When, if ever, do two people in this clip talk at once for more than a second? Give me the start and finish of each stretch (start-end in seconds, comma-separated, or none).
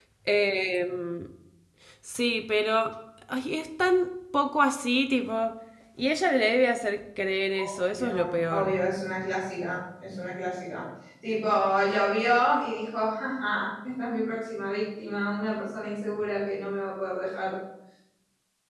7.5-8.8